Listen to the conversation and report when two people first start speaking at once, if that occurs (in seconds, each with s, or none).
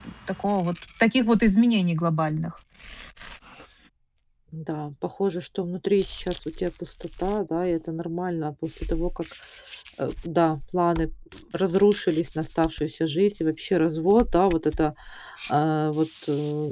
none